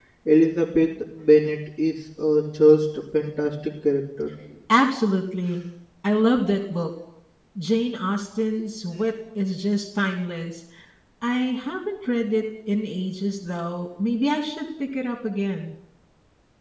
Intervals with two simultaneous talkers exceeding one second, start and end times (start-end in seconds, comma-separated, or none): none